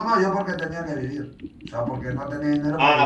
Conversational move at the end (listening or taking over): taking over